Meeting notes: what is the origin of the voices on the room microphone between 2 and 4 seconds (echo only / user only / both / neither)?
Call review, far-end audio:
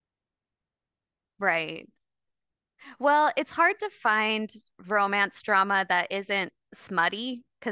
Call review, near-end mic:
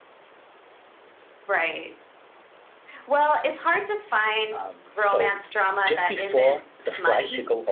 echo only